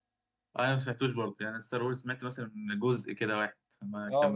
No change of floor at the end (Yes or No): No